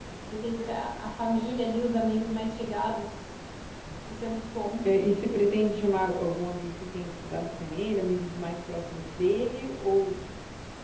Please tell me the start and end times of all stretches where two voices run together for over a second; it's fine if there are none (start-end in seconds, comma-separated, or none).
none